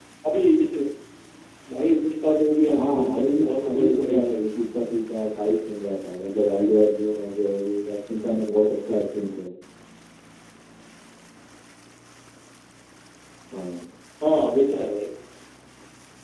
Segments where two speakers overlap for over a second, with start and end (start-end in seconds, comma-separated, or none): 2.7-4.5